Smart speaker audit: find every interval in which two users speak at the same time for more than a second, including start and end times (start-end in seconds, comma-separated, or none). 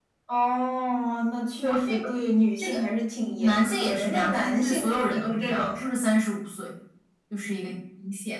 3.4-5.9